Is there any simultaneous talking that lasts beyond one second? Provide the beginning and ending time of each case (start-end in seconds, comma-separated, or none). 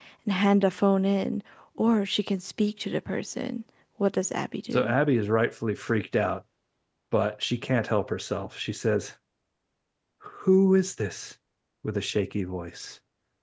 none